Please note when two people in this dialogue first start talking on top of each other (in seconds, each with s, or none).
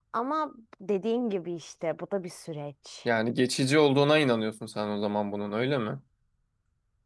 none